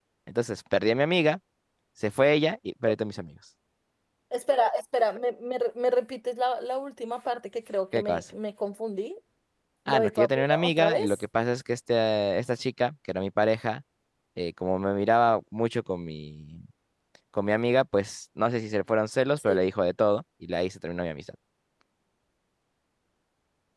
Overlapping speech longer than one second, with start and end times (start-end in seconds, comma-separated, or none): 9.9-11.2